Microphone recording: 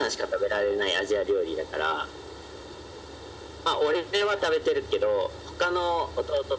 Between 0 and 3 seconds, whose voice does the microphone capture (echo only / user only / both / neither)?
echo only